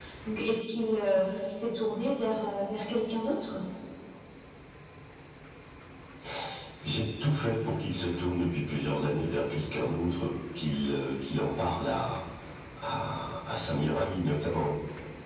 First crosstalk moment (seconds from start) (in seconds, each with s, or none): none